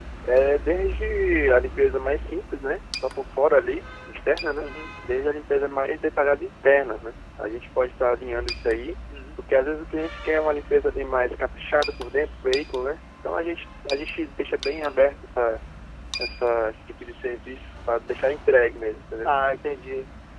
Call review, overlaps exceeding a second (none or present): none